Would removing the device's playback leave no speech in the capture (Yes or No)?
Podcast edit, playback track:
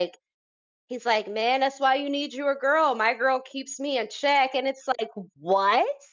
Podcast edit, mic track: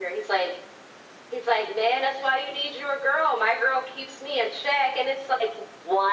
Yes